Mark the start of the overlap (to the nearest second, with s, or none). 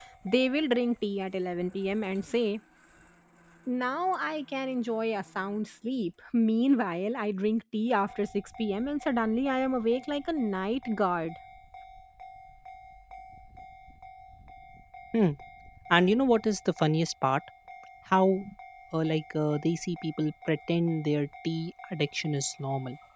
none